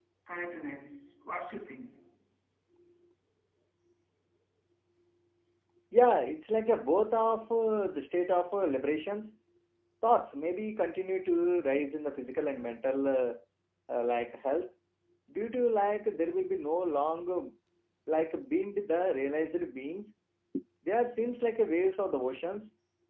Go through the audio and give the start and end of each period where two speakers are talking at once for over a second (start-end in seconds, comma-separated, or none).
none